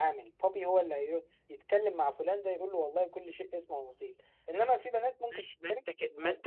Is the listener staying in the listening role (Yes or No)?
No